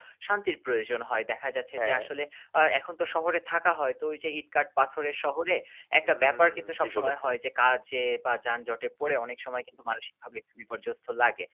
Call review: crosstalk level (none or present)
present